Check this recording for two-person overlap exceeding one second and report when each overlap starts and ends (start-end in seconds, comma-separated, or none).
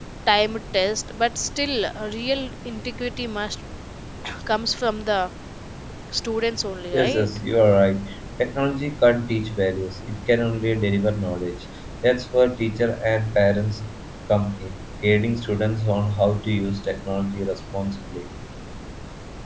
none